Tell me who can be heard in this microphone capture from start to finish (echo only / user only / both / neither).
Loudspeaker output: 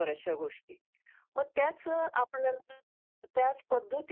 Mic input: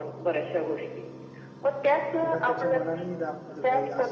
both